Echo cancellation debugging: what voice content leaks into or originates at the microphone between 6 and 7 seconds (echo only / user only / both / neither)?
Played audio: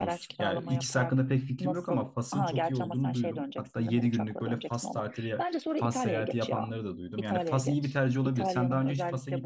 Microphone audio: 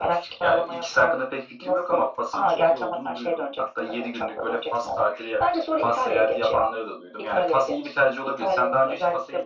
echo only